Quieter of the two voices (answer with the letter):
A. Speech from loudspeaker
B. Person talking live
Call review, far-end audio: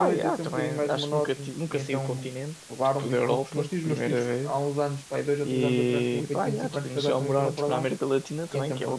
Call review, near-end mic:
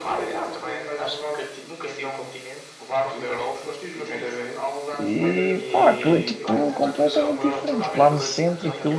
A